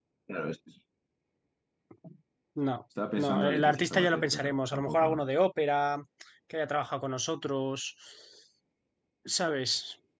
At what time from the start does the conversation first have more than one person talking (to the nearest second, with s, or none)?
3 s